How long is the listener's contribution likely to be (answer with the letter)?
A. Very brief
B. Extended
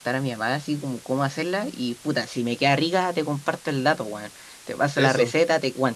A